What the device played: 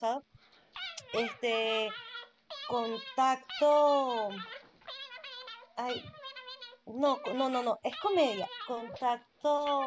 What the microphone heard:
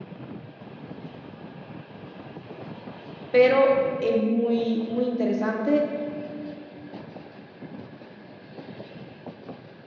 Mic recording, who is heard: user only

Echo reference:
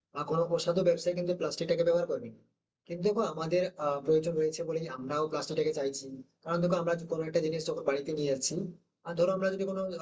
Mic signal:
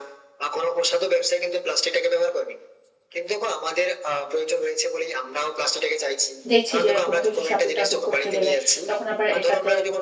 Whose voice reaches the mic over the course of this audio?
both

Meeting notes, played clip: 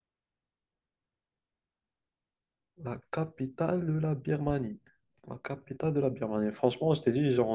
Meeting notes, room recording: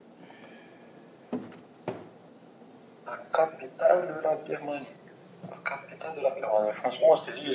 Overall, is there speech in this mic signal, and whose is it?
echo only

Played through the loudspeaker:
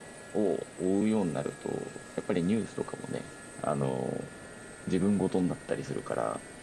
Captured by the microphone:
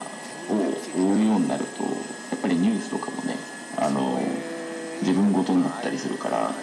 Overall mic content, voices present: both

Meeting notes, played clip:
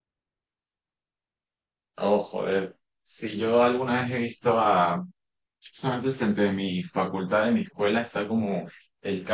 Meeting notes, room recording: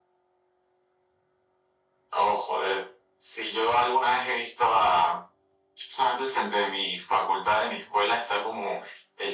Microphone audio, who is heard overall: echo only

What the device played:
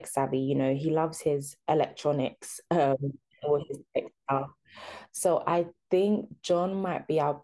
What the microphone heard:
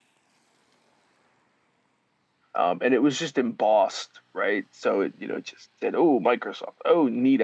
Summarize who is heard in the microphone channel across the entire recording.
user only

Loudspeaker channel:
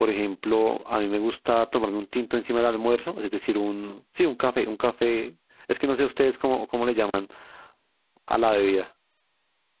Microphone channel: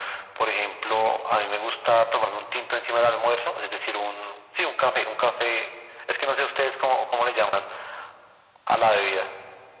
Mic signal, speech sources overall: echo only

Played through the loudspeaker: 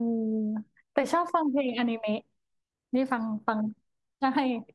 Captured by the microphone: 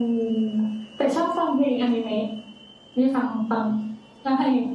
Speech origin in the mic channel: echo only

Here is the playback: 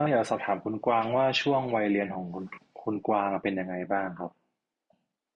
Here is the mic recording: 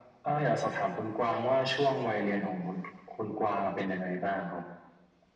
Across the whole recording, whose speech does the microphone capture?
echo only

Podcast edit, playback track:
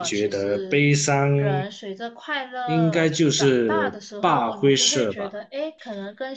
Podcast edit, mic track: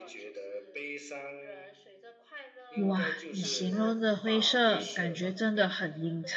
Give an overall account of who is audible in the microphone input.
both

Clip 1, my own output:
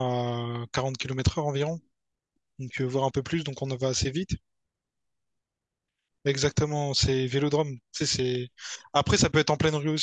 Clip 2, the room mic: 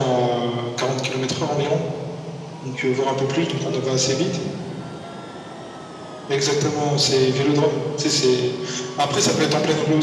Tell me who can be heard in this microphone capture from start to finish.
echo only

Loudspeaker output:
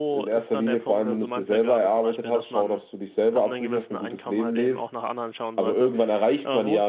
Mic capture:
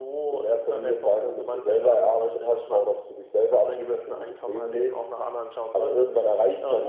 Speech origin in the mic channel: echo only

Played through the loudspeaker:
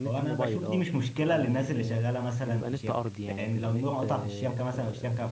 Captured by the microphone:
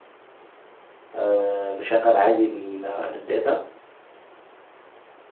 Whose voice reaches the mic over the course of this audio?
user only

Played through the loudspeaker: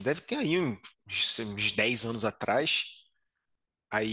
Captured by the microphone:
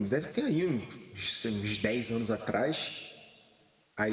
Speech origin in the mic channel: echo only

